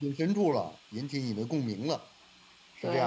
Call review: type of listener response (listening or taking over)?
taking over